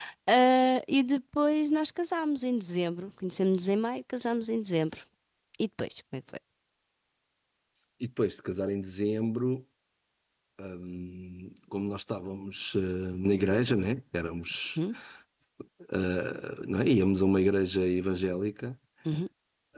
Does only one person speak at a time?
Yes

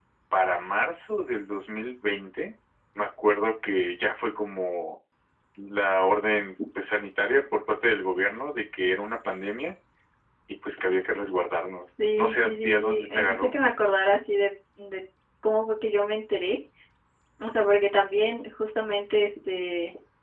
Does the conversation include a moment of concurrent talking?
Yes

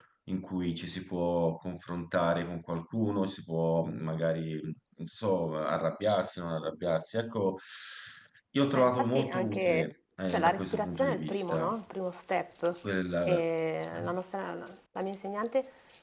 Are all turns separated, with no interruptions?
No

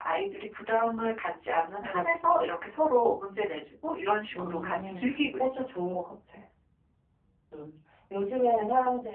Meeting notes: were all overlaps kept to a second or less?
No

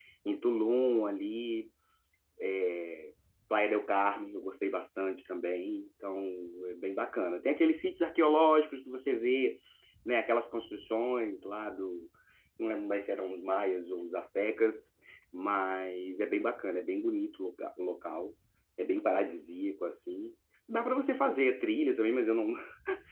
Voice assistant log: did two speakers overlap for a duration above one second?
No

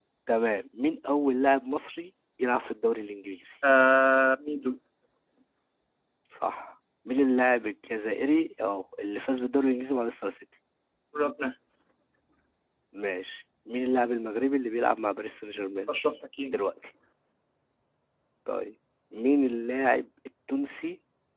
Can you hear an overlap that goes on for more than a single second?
No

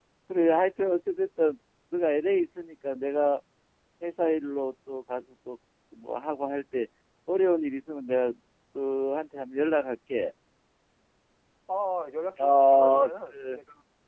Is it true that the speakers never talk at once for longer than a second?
No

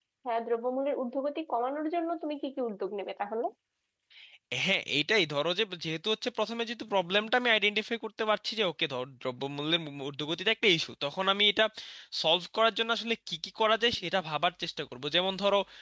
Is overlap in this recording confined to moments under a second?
Yes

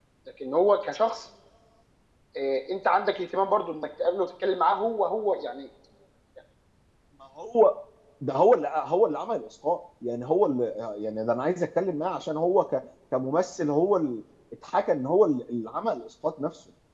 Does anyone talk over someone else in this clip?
No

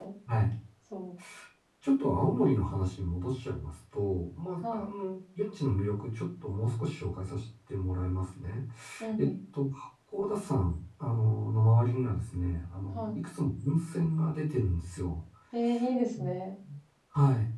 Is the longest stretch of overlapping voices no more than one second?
Yes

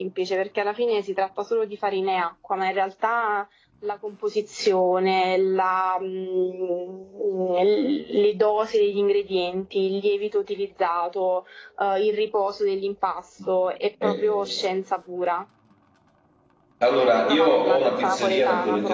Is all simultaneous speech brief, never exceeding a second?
No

